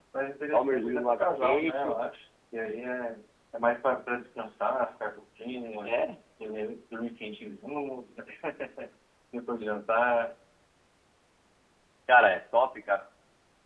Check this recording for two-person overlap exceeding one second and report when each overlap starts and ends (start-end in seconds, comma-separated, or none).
0.5-2.0